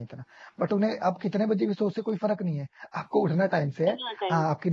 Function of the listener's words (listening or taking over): listening